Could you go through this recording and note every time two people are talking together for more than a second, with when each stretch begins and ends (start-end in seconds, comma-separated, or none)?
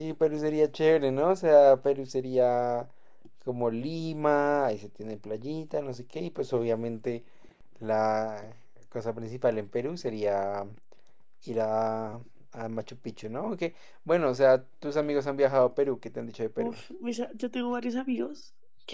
none